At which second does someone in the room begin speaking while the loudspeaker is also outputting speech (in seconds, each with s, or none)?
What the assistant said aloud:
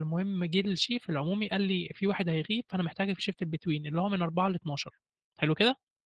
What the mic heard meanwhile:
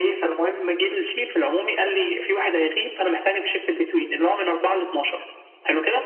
none